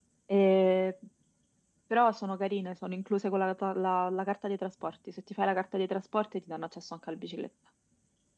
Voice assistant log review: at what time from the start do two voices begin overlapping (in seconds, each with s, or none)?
none